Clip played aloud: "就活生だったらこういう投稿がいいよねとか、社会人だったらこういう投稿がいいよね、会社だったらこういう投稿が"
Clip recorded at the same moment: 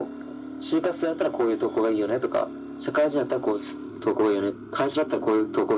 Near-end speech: none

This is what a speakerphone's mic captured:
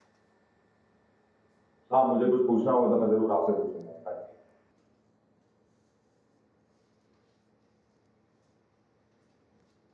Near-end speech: present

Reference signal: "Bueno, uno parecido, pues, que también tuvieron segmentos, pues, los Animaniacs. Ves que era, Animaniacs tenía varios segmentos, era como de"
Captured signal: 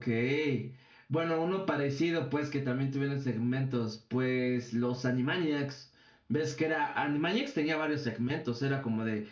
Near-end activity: none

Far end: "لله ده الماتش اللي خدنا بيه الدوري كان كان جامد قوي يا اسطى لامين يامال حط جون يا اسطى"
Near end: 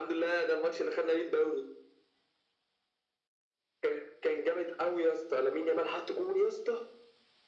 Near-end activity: none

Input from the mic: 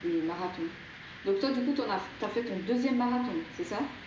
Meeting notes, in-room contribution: none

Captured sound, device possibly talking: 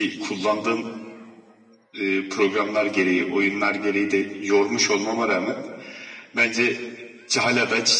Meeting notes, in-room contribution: none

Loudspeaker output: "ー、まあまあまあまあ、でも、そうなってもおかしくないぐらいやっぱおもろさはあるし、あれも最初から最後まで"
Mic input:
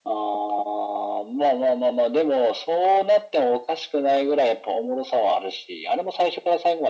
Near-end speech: none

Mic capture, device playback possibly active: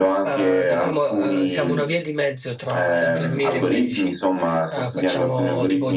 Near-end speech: present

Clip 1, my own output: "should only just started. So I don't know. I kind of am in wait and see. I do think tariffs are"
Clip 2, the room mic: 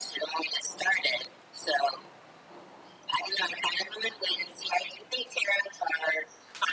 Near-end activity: none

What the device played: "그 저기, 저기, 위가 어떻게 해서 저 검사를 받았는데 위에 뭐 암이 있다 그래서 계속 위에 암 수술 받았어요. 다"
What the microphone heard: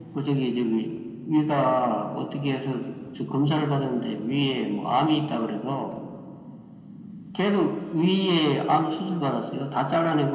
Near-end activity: none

